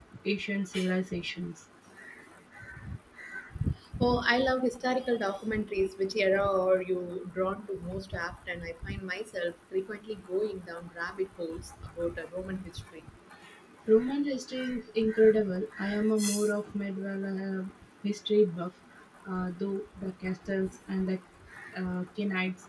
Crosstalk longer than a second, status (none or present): none